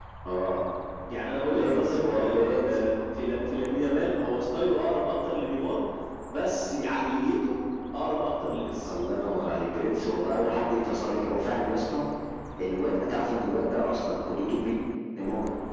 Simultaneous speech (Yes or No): Yes